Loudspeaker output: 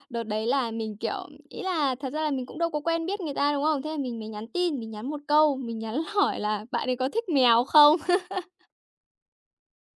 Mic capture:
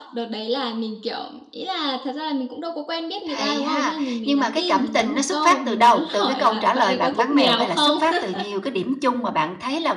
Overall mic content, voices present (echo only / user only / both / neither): both